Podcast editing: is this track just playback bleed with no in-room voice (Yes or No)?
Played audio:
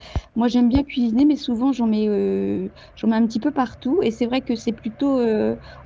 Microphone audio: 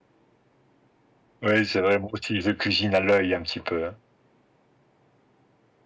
No